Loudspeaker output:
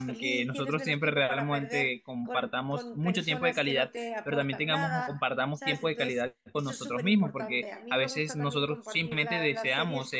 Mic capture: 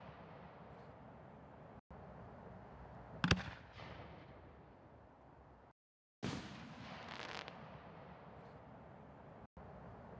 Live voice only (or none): none